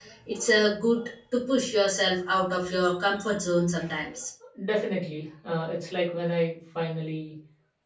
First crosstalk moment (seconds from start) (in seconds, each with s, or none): none